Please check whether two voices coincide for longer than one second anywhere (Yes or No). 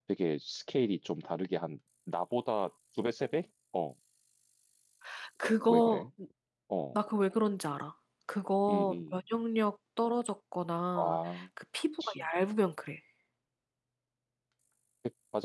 No